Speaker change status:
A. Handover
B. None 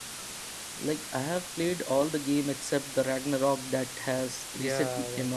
A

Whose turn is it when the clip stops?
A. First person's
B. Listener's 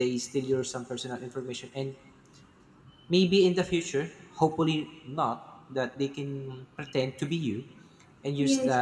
A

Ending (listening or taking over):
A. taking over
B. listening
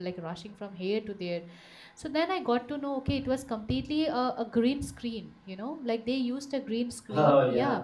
B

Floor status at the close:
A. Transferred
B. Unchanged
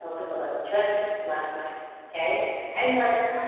B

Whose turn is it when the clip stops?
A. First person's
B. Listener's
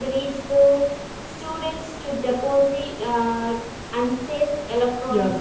B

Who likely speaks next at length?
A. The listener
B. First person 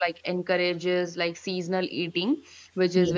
B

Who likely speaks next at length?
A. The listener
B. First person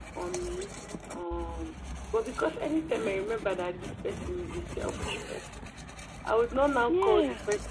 B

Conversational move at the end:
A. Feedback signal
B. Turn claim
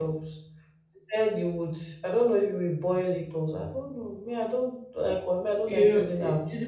B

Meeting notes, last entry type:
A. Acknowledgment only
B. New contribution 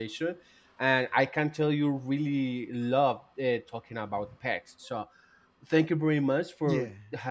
A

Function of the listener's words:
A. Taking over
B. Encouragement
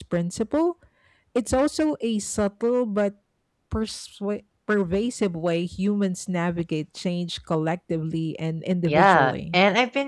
A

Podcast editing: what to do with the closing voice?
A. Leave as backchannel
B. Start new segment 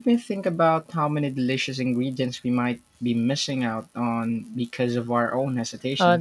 B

